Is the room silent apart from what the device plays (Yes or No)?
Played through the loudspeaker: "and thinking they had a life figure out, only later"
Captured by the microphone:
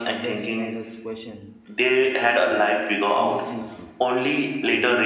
No